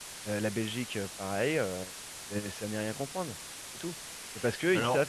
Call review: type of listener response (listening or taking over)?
listening